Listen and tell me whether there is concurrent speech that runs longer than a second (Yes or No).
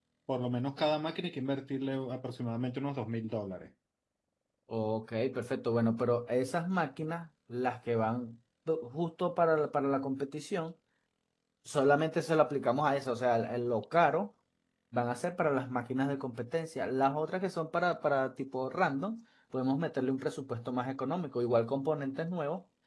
No